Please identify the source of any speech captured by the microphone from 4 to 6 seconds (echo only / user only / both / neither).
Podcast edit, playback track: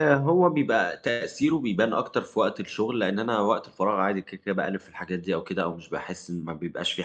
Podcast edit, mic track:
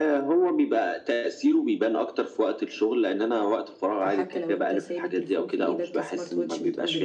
both